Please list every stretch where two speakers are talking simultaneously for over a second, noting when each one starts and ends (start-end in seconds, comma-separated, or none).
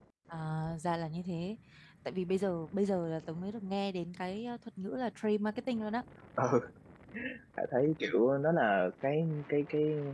none